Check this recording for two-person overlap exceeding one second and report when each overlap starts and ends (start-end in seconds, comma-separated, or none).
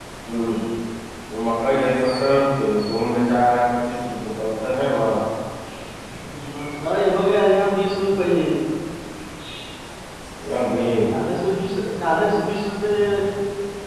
none